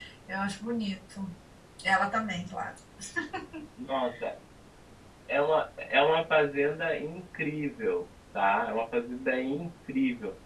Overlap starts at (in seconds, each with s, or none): none